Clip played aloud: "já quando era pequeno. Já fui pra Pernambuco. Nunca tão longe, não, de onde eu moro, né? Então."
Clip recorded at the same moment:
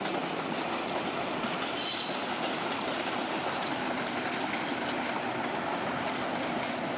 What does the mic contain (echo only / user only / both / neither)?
neither